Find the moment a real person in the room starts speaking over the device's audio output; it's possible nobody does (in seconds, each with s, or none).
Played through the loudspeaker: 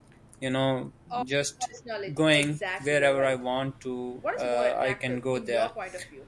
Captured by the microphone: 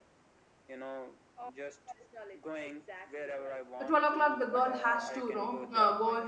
3.9 s